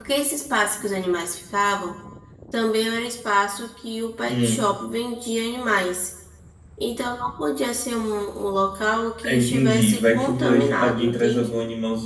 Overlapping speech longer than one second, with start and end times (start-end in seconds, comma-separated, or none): 9.2-11.5